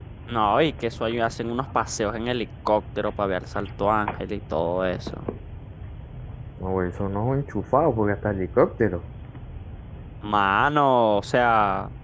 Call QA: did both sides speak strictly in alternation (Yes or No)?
Yes